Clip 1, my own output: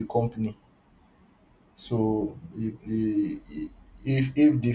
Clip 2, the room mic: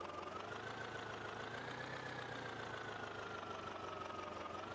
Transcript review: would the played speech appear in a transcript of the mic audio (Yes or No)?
No